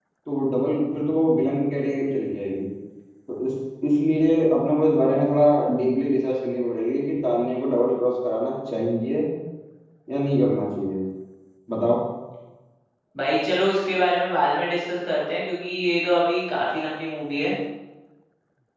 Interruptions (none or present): none